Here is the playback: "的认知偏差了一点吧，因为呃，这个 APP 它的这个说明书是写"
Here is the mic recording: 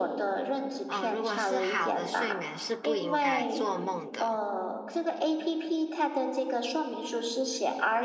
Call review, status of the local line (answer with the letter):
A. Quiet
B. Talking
B